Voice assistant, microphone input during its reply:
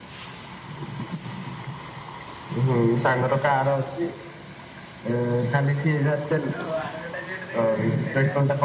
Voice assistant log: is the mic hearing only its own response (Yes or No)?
No